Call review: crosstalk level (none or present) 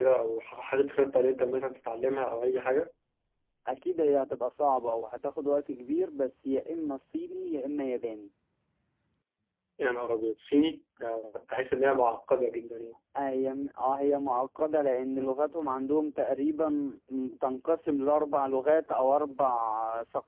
none